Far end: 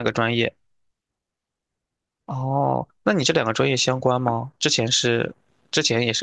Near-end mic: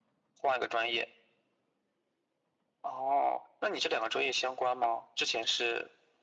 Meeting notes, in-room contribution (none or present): none